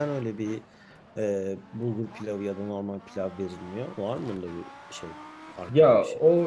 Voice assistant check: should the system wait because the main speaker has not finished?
No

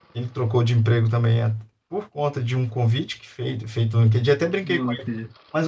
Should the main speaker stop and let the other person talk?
No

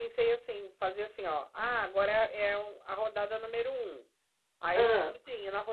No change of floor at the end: Yes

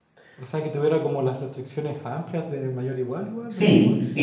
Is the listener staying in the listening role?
No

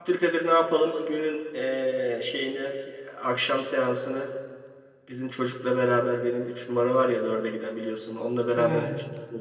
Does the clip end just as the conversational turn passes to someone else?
No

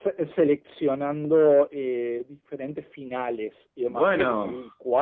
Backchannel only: Yes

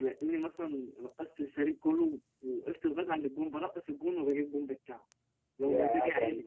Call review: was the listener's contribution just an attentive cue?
No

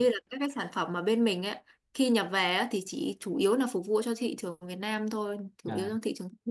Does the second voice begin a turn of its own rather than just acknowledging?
Yes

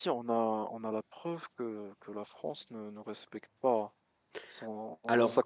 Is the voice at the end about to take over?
No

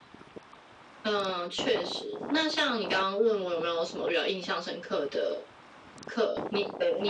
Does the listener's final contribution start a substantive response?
No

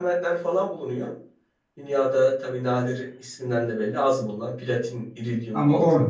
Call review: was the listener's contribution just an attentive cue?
No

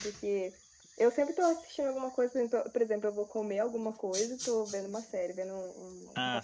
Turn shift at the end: Yes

